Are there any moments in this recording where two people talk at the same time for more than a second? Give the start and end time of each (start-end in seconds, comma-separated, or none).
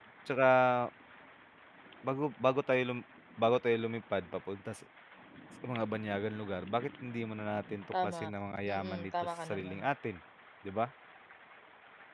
8.7-9.9